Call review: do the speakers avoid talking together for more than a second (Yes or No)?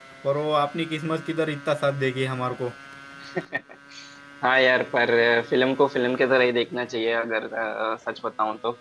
Yes